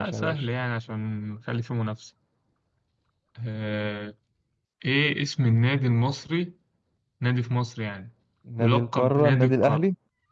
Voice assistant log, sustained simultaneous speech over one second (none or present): present